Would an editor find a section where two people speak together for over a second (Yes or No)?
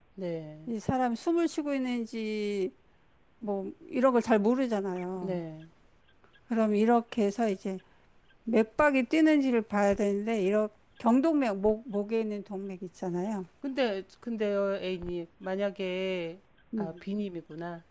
No